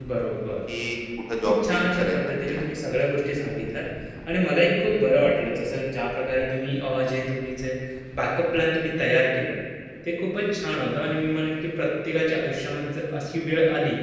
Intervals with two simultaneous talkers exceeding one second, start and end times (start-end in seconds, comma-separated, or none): 1.4-2.6